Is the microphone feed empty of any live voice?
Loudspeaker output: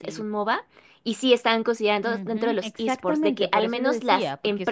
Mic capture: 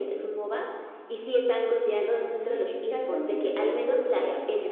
Yes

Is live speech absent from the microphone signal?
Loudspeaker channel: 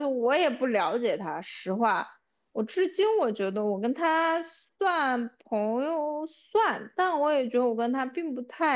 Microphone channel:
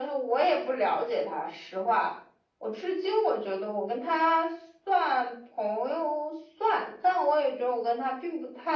Yes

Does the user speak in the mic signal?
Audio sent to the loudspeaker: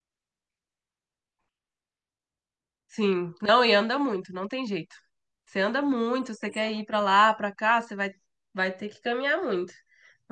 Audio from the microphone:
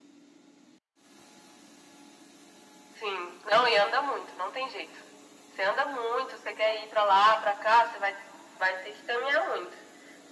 No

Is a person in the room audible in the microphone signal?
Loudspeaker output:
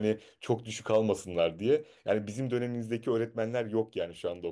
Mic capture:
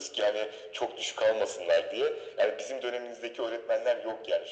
No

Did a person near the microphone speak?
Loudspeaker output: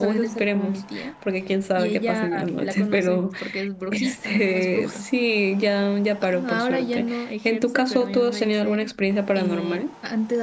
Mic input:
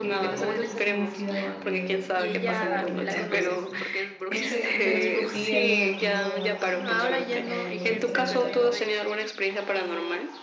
Yes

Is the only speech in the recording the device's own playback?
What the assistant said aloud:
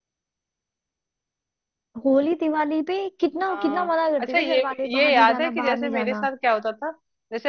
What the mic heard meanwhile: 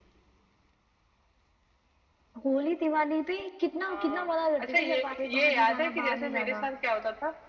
Yes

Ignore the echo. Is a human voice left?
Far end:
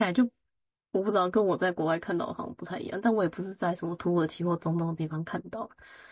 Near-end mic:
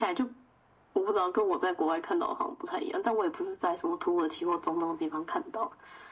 No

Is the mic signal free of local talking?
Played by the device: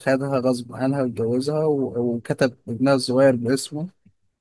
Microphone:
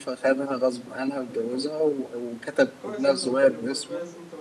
No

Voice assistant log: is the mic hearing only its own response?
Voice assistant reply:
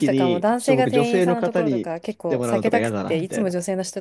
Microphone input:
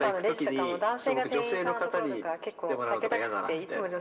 Yes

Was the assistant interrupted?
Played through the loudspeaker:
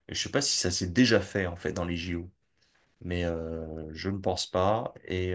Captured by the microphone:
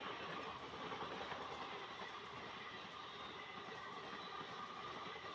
No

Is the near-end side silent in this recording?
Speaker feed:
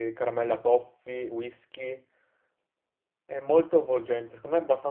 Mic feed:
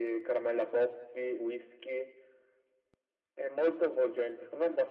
Yes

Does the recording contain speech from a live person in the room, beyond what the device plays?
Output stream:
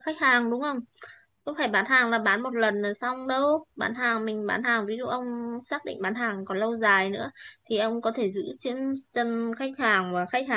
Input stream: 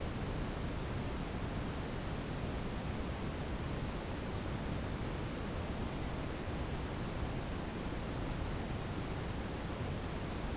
No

